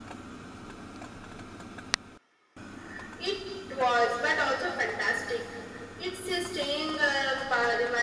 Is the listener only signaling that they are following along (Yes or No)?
Yes